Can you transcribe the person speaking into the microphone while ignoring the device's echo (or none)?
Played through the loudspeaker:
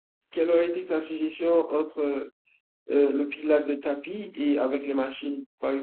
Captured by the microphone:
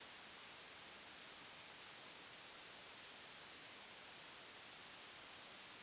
none